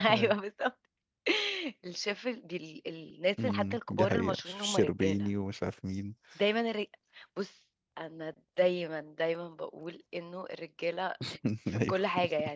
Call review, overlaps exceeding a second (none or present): present